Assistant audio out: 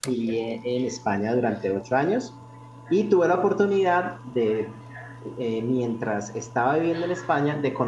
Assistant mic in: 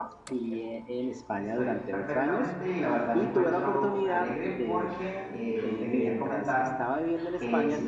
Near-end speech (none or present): present